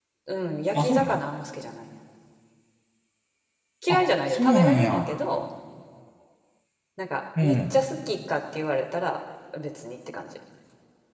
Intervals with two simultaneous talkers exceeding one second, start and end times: 3.9-5.1

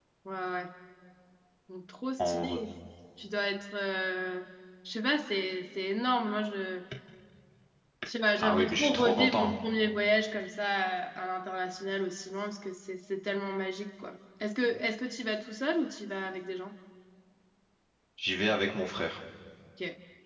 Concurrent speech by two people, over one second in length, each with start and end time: 8.4-9.6

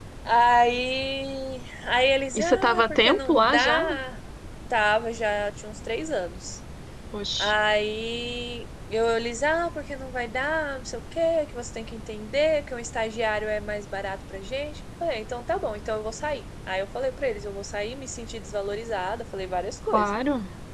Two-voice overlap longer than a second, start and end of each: 2.4-3.8

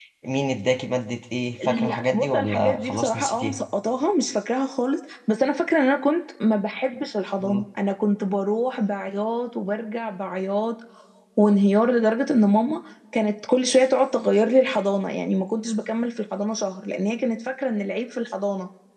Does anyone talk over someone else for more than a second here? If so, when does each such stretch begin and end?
1.6-3.6

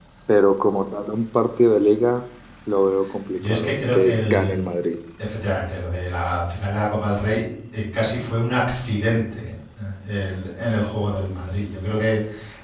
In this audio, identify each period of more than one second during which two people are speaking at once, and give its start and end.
3.4-4.6

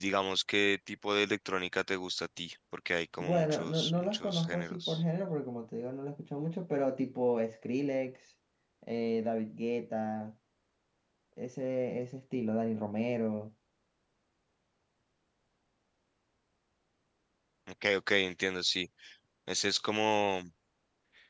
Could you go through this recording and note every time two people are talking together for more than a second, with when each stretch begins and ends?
3.2-5.0

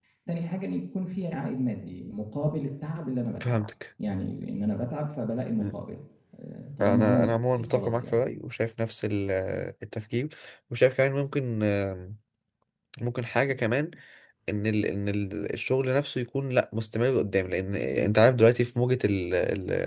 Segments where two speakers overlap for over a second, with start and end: 6.8-8.2

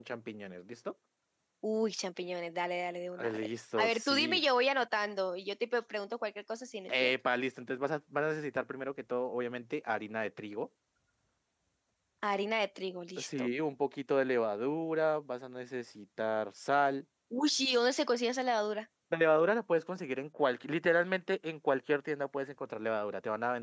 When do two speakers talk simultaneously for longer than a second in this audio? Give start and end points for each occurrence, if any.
3.2-4.4

